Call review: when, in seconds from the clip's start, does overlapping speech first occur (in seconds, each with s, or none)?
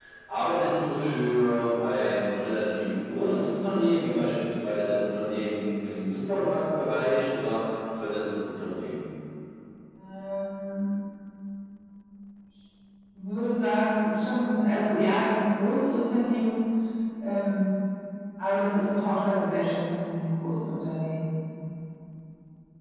none